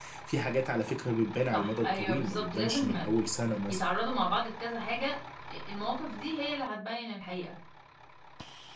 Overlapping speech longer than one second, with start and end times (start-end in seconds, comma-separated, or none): 1.5-3.1